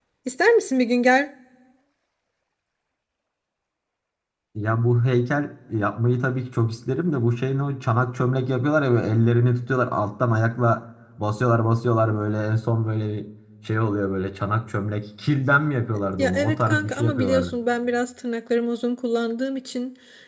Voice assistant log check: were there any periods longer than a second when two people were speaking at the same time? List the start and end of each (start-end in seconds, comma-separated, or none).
16.2-17.5